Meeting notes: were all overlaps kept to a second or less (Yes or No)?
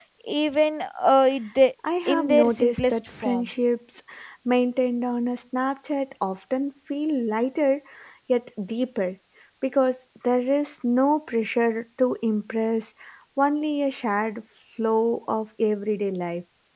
No